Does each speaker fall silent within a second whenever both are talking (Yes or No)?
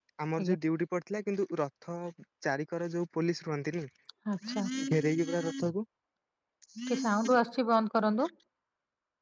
Yes